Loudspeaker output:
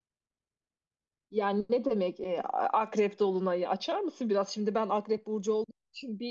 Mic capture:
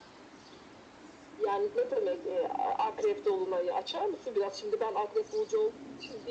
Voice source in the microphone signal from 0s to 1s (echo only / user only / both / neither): neither